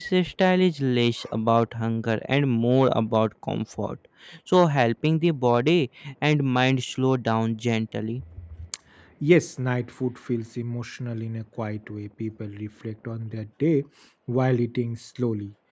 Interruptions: none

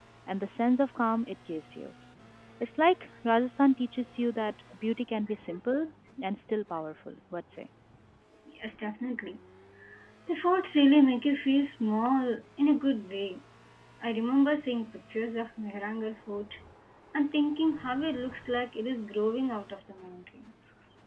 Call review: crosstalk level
none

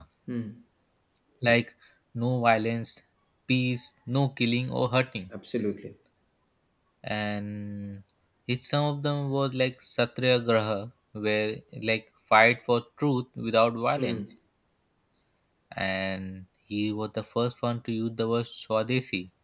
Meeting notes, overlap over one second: none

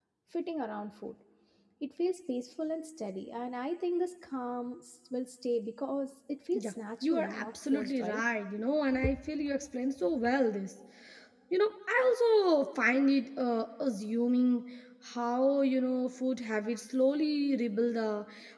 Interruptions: present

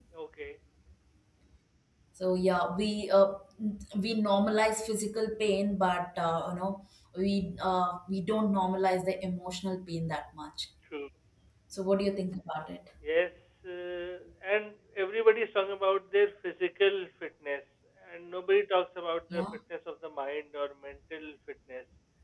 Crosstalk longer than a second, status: none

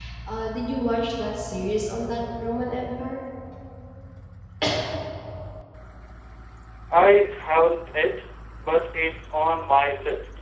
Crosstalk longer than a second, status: none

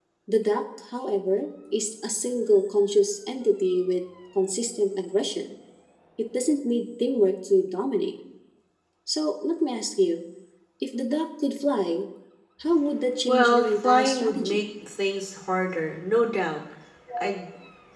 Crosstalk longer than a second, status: present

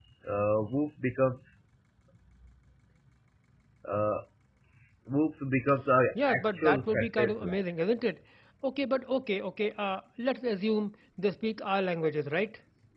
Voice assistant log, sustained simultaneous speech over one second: present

